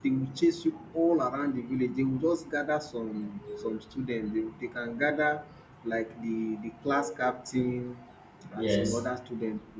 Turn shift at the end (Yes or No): No